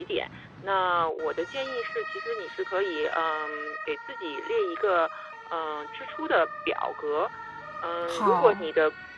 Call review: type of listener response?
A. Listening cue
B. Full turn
A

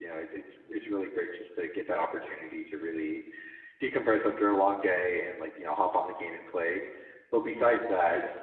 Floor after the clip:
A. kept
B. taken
A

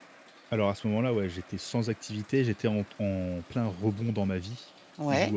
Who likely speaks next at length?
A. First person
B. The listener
A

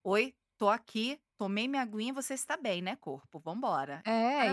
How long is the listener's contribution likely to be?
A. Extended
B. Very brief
A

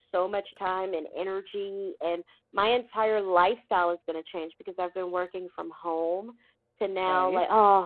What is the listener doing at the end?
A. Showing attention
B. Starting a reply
A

